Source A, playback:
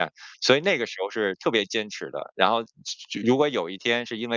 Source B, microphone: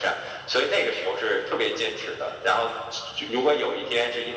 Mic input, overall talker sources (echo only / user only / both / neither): echo only